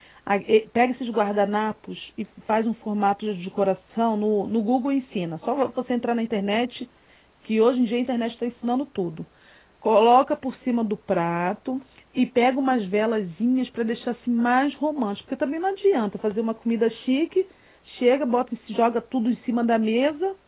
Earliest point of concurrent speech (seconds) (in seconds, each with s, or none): none